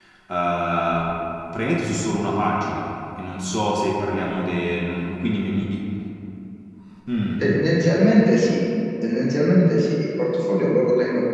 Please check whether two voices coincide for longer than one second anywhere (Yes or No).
No